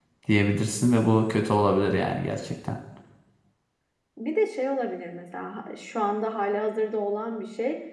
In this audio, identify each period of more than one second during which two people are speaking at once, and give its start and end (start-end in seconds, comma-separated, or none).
none